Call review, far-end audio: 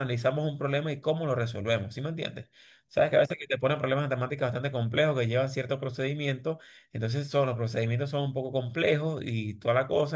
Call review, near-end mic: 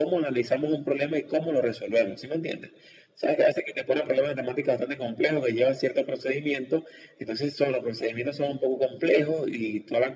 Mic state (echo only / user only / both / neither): echo only